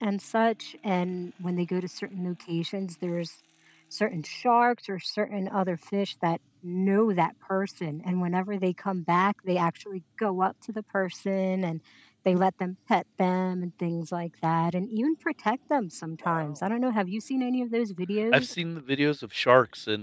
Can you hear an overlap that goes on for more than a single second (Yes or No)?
No